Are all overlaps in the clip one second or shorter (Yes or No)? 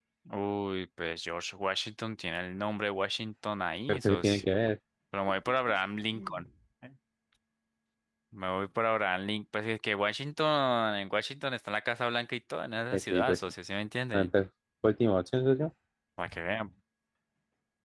Yes